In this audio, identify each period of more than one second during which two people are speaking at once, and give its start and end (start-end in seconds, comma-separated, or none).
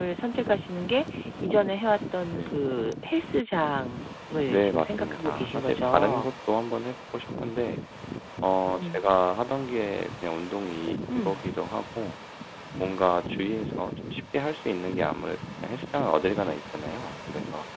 4.5-6.3